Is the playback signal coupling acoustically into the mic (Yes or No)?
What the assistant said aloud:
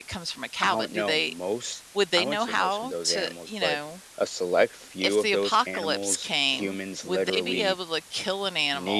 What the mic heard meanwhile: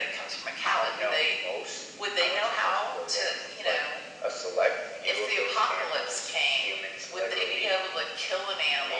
Yes